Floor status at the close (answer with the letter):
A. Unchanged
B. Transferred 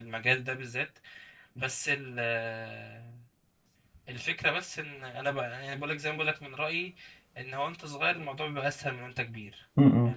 B